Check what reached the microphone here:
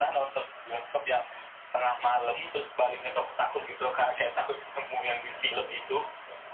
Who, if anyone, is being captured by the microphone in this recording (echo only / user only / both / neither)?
echo only